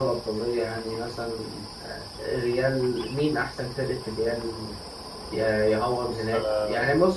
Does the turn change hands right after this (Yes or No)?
No